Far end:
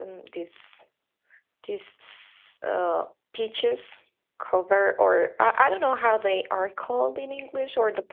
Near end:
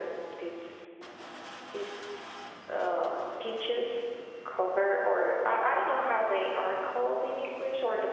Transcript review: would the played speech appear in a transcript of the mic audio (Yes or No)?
Yes